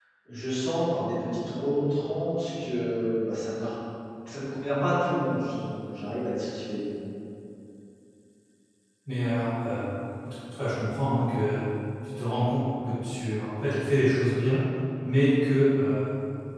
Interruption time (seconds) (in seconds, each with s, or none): none